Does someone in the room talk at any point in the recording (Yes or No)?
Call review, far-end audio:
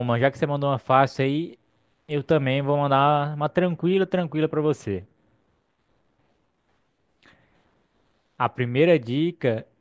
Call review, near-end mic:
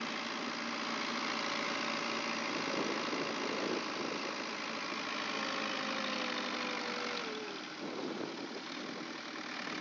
No